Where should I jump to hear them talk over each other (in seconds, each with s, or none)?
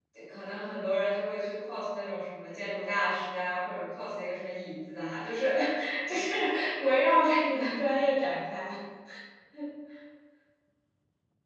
none